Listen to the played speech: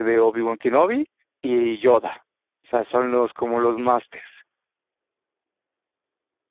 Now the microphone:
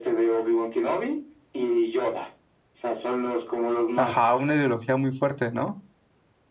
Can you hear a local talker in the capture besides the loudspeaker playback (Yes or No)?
Yes